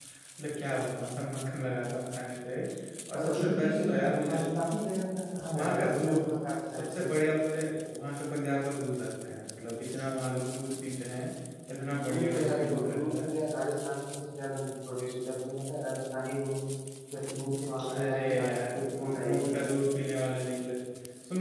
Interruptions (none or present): present